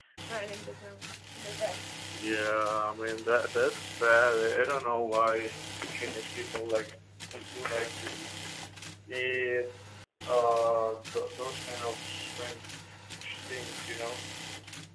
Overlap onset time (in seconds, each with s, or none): none